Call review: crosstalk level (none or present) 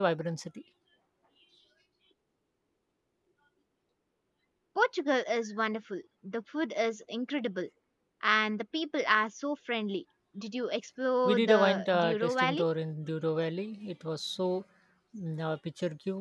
present